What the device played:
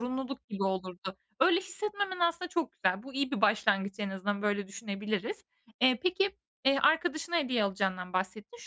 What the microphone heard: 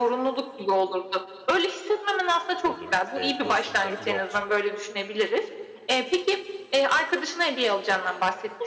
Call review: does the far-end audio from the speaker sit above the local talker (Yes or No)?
Yes